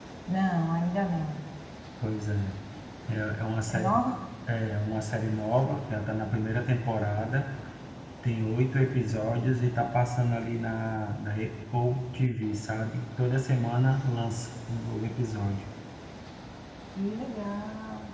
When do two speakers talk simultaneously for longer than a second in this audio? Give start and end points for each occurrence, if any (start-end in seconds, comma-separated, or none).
none